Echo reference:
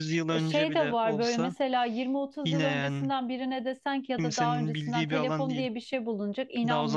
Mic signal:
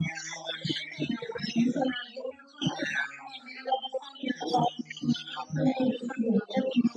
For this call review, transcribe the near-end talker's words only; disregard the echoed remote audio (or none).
none